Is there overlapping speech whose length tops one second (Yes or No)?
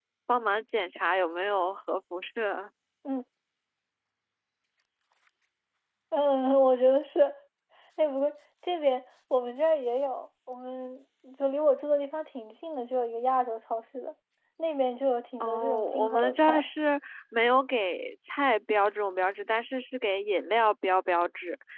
Yes